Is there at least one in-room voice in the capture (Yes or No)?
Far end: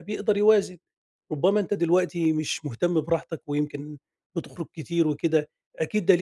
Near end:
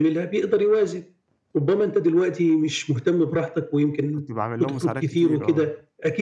Yes